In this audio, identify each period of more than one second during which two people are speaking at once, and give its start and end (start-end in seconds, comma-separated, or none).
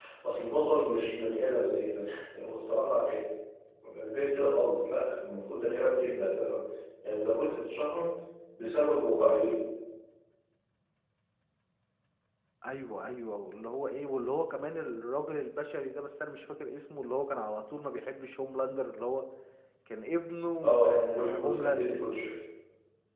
20.6-22.0